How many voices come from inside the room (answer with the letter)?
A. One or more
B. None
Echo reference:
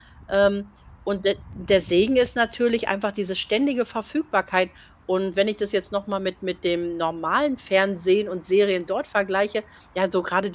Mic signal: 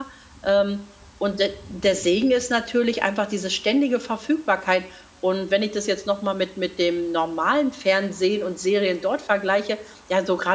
B